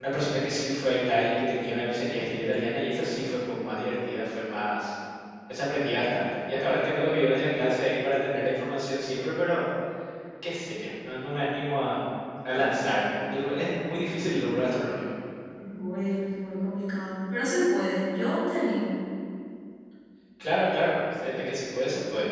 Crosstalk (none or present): none